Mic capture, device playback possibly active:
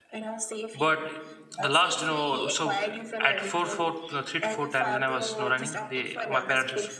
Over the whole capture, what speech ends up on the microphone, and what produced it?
both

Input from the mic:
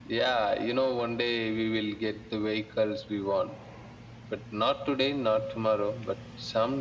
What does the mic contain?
echo only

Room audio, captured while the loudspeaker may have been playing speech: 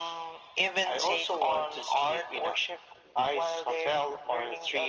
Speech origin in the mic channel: echo only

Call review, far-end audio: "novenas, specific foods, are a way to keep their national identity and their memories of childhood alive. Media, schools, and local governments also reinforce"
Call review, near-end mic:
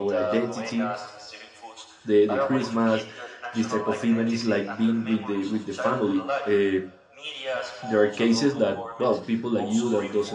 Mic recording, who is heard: both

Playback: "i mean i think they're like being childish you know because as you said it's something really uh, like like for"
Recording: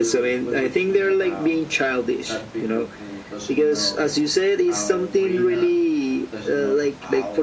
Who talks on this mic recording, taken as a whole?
both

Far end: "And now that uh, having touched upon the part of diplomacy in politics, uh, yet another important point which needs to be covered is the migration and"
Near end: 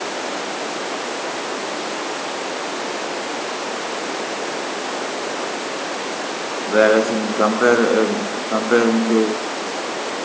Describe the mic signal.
user only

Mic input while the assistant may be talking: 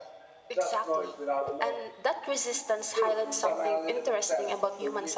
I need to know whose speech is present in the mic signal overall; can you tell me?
both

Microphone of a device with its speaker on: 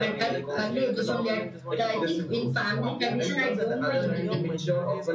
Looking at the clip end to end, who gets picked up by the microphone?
both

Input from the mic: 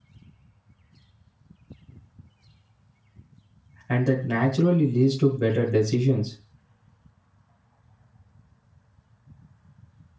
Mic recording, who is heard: user only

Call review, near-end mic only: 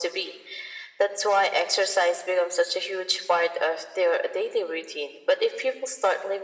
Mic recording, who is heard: echo only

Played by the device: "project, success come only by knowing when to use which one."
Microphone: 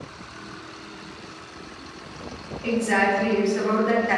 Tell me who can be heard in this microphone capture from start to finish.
user only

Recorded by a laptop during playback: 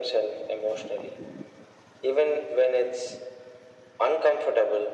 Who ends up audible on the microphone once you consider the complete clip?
echo only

